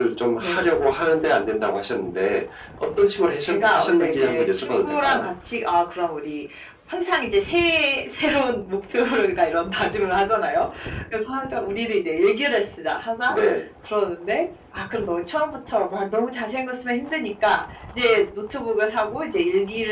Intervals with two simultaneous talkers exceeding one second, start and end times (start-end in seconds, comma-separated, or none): 3.4-5.3